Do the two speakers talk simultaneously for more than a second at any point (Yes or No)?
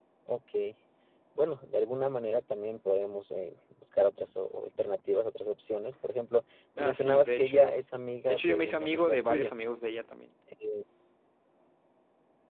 Yes